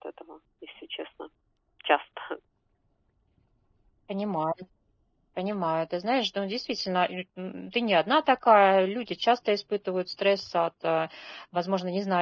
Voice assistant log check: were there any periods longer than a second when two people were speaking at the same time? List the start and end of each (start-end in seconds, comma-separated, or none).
none